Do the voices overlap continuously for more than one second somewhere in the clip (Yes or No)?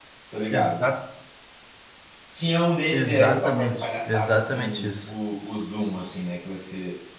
Yes